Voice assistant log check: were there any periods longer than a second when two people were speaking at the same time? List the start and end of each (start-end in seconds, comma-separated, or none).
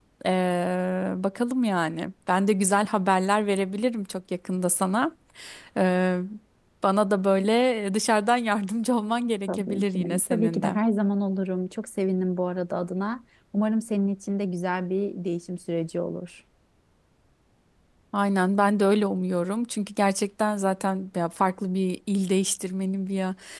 9.5-10.8